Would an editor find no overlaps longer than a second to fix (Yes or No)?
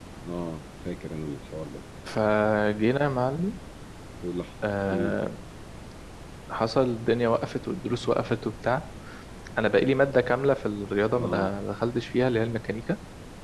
Yes